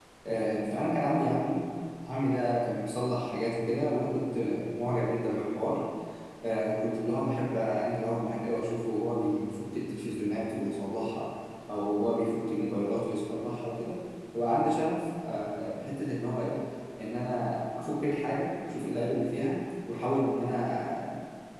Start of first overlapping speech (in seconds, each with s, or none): none